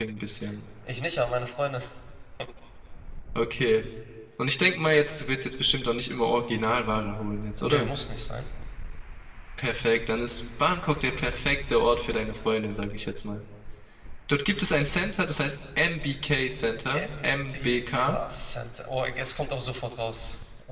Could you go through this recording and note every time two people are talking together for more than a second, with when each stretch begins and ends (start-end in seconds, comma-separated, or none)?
16.9-18.2